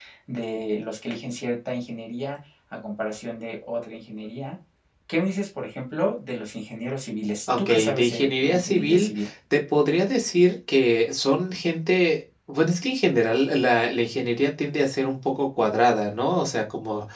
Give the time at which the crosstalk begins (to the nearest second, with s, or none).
7 s